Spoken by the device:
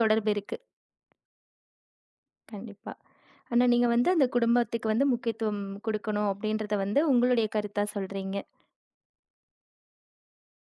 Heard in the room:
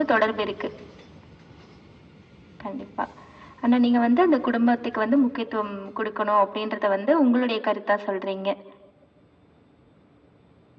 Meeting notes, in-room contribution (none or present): none